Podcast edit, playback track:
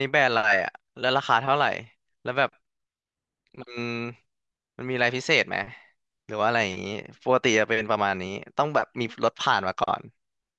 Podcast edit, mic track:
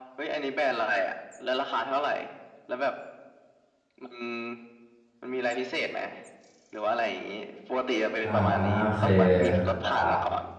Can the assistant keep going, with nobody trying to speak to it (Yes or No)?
No